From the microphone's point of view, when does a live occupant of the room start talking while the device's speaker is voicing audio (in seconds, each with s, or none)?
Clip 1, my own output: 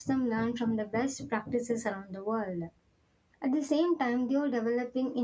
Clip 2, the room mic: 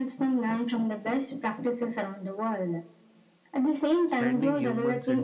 4.1 s